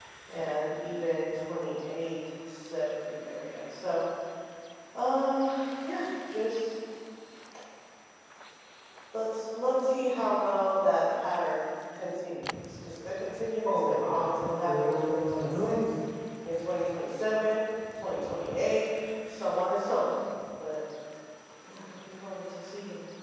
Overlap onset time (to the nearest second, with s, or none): 14 s